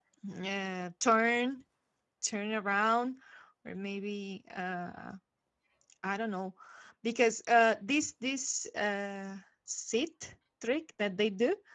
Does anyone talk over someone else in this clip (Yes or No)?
No